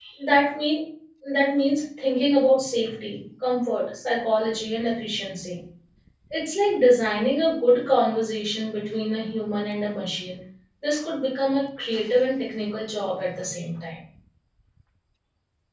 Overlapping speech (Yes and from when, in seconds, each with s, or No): No